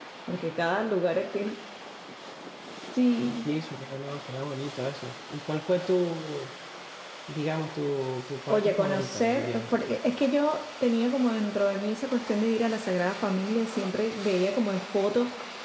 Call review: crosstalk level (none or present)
present